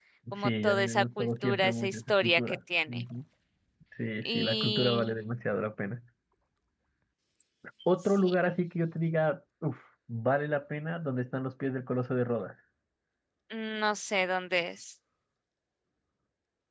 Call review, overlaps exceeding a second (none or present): present